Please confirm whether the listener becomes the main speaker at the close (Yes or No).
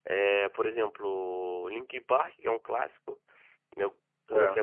No